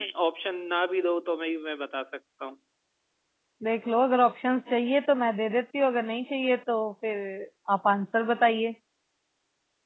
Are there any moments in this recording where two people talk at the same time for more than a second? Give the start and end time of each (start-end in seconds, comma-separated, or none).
none